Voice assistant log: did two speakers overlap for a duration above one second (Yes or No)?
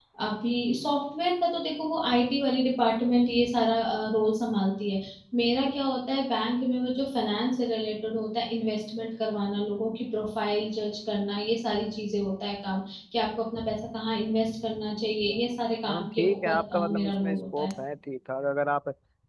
Yes